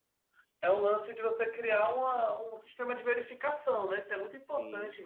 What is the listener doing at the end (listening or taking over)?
listening